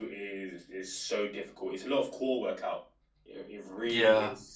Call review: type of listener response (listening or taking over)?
listening